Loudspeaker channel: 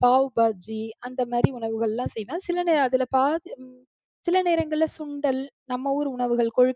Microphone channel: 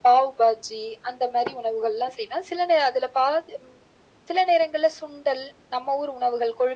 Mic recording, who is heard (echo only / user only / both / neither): echo only